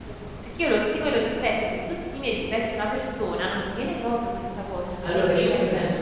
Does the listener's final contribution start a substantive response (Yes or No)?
Yes